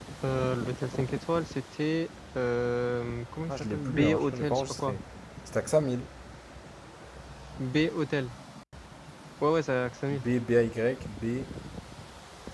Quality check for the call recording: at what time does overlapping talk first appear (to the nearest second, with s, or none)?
3 s